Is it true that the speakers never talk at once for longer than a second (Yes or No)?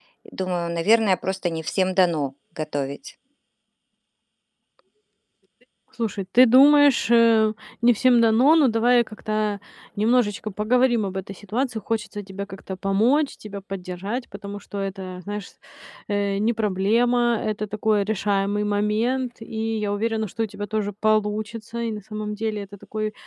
Yes